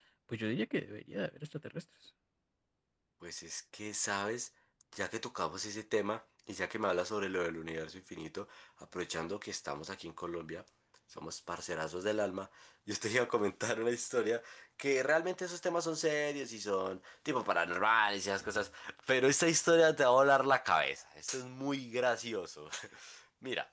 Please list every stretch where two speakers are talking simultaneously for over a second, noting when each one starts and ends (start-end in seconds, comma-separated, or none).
none